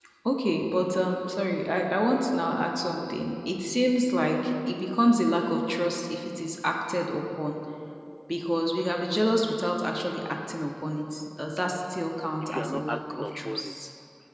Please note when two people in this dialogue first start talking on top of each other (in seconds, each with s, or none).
12.4 s